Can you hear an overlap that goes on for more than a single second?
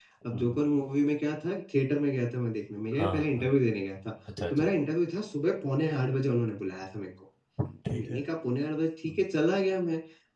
No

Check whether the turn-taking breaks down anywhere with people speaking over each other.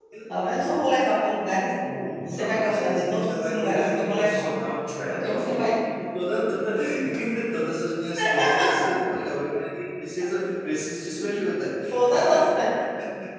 Yes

